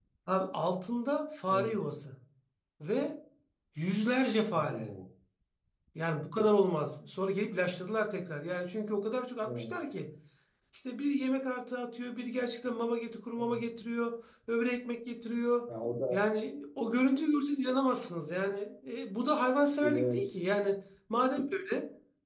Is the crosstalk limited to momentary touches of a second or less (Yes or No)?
Yes